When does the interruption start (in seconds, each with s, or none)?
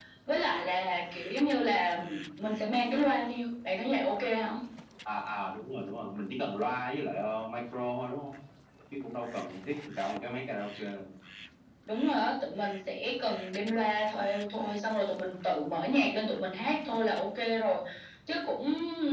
none